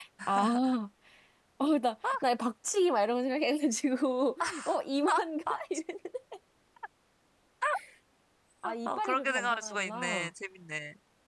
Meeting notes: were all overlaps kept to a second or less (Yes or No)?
No